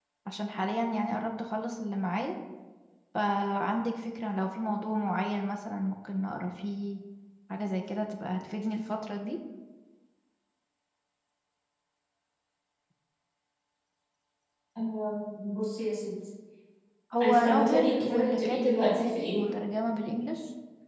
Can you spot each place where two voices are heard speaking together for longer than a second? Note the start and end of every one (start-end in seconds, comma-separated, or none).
17.2-19.4